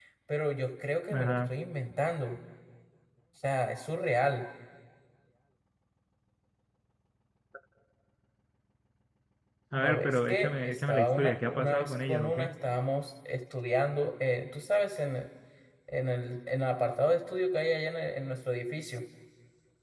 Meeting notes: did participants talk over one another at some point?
Yes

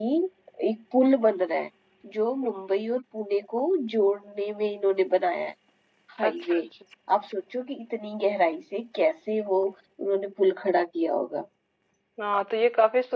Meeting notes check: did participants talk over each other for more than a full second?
No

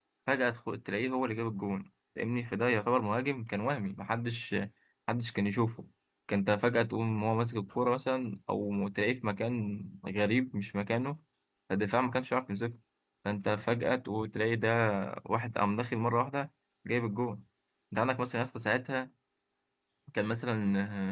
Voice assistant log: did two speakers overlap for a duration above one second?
No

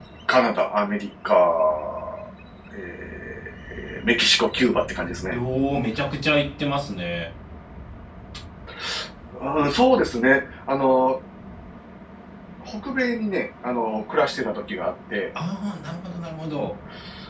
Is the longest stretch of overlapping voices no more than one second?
Yes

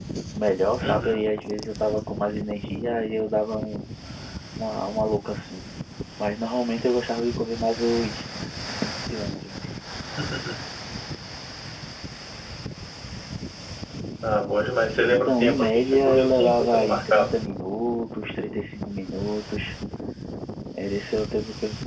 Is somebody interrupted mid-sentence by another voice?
Yes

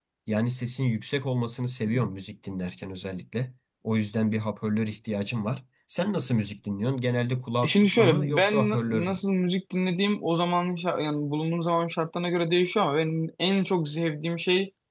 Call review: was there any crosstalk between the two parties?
Yes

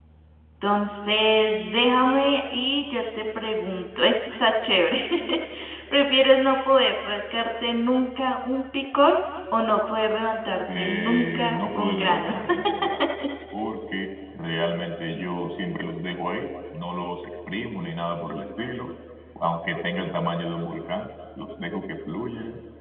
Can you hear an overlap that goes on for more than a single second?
Yes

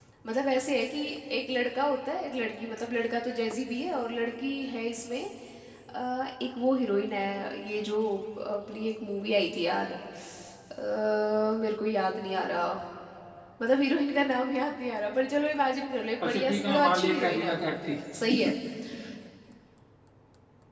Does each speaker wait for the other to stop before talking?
No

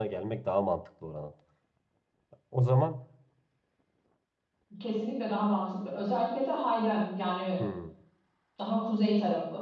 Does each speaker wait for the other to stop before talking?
Yes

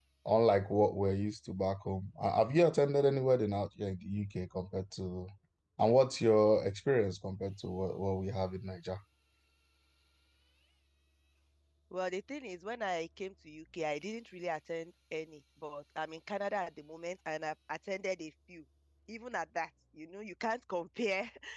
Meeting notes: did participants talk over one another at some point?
No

